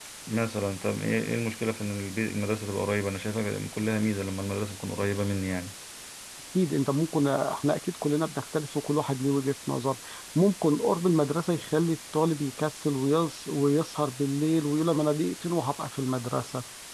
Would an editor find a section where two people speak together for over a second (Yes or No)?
No